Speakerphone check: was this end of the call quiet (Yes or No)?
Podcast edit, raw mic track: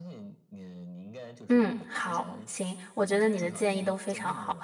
No